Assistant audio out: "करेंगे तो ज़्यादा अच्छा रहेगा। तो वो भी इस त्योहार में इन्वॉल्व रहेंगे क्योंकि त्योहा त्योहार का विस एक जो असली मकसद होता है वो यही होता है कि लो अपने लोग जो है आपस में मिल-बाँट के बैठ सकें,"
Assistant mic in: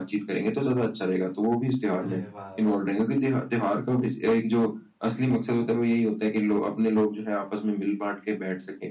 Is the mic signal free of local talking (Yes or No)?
No